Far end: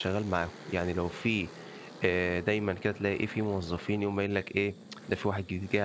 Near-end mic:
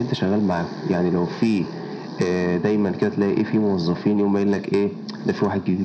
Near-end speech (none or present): none